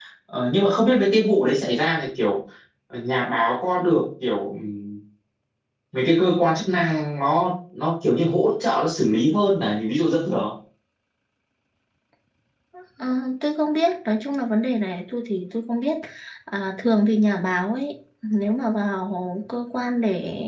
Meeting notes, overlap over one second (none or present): none